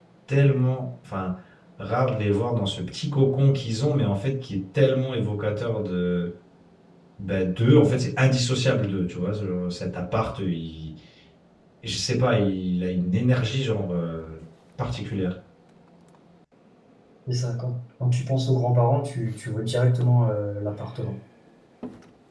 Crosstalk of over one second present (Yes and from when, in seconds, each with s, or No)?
No